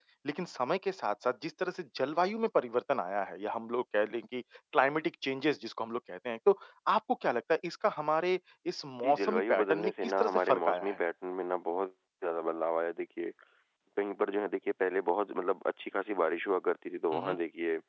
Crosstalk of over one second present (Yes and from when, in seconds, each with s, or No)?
Yes, from 9.0 s